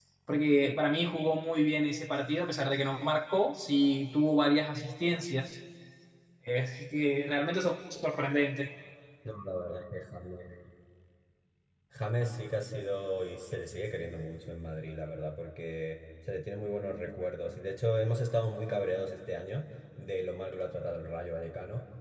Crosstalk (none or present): none